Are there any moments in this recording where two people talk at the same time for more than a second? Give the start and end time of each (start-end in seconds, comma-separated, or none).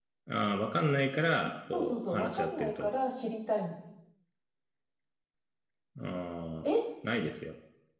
1.7-2.9